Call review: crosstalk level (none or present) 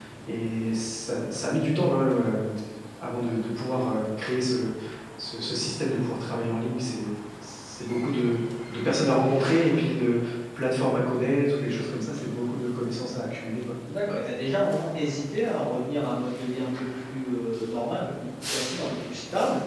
none